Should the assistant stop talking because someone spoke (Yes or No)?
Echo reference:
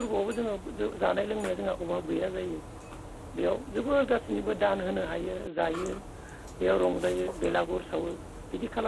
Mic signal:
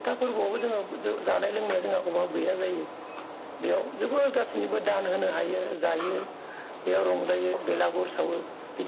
No